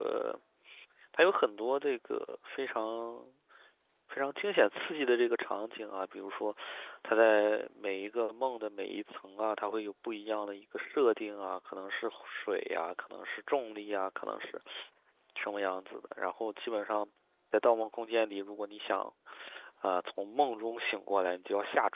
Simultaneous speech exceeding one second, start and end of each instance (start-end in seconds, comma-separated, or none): none